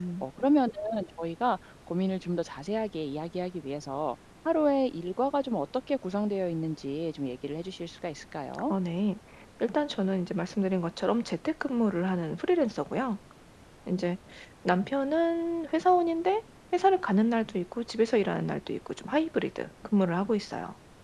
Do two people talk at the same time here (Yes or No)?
No